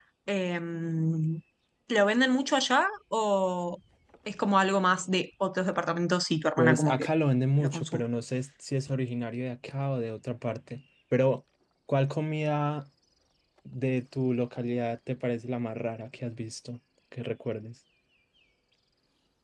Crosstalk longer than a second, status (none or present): none